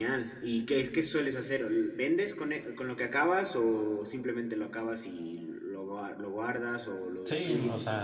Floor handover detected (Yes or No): Yes